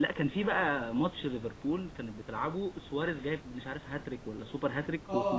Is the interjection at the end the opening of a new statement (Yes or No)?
Yes